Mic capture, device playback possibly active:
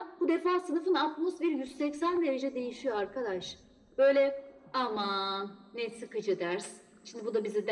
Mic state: echo only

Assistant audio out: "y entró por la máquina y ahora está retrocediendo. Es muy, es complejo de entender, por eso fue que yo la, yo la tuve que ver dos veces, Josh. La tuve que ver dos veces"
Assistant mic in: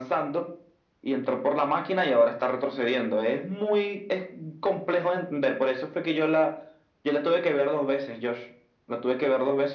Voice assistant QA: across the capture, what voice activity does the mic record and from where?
echo only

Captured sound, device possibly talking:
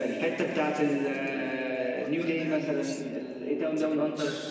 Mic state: both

